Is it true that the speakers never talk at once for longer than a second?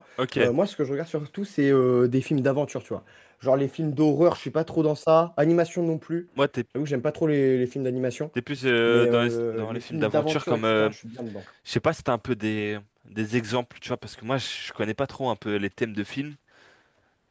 No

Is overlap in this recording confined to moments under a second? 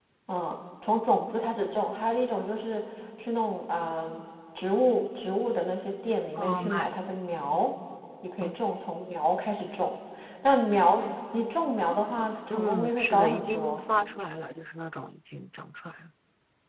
No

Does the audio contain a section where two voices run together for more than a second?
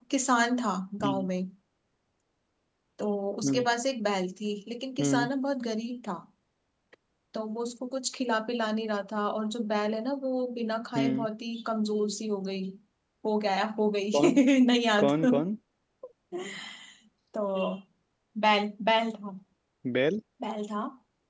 No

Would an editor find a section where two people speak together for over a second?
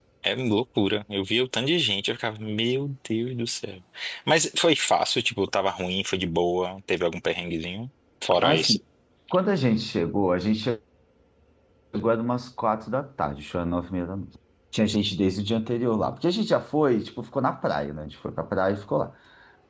No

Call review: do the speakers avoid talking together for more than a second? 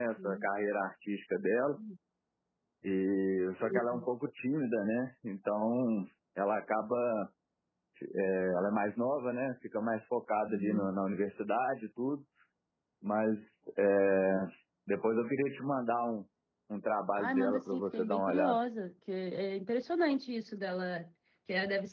No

